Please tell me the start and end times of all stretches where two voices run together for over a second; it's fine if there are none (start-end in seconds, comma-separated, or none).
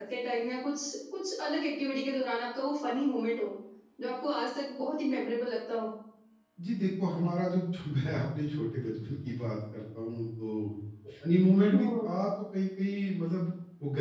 none